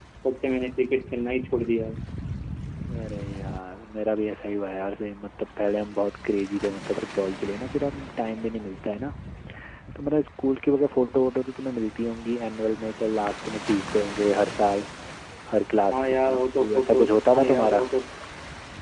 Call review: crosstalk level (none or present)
present